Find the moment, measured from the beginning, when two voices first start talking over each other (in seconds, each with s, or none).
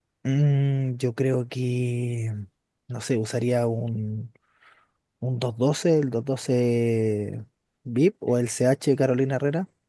none